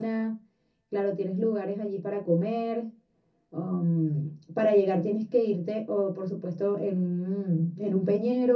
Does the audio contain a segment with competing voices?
No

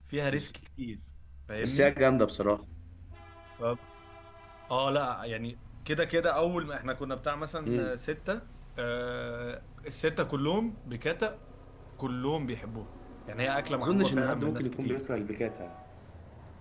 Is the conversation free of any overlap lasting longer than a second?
No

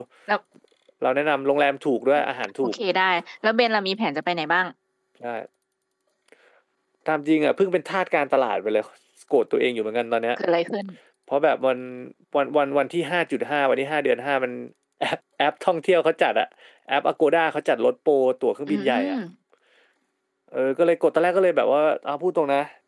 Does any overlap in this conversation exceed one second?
No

